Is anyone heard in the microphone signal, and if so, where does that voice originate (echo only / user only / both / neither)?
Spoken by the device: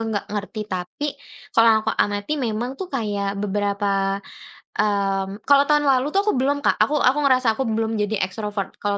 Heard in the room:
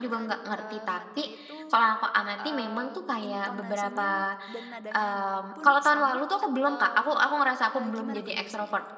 both